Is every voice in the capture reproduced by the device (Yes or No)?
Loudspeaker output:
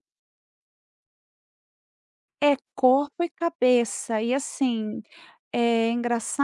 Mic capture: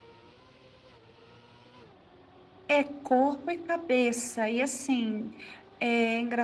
Yes